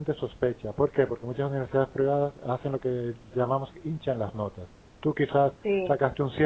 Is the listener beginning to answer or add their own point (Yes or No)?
No